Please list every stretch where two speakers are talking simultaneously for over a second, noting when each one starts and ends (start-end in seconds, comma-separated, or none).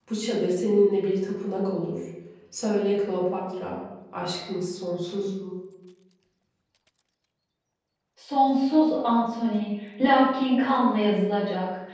none